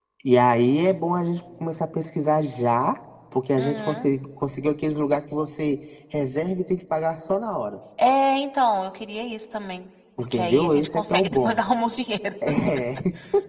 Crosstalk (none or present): present